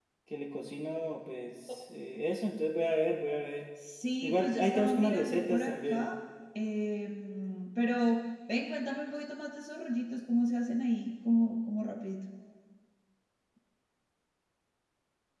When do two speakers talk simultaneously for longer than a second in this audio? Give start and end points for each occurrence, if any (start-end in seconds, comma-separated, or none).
4.2-6.1